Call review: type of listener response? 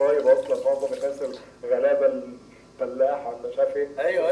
taking over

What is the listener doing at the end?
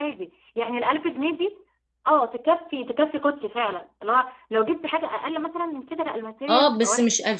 taking over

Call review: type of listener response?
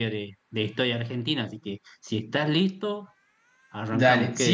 taking over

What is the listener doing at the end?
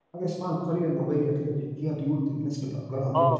taking over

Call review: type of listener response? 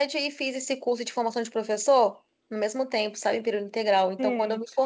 listening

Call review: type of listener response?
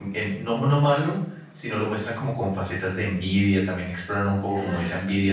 listening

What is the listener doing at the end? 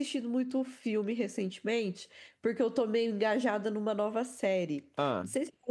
listening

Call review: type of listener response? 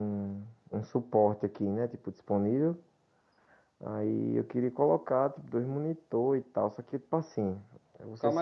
taking over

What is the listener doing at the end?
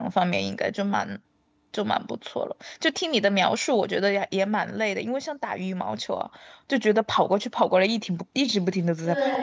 taking over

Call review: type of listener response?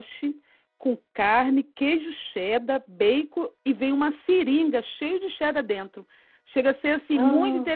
listening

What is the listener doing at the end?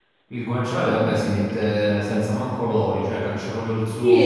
taking over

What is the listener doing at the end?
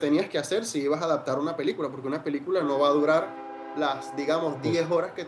listening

